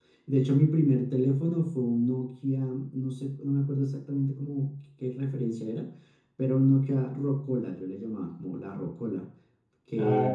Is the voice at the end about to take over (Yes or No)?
Yes